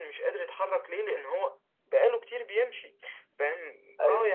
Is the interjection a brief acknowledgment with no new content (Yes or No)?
Yes